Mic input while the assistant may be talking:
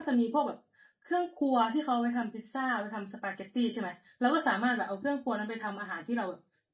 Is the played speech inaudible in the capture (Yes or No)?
Yes